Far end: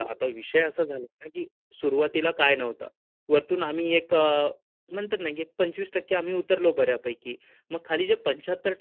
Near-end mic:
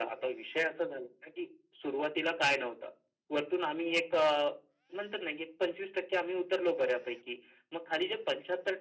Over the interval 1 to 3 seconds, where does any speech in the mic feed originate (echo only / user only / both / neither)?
echo only